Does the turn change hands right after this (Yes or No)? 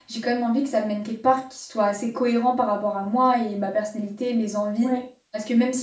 No